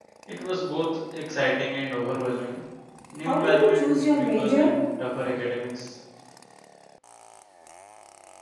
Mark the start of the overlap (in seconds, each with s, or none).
3.2 s